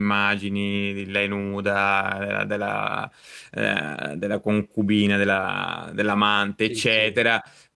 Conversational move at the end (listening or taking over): listening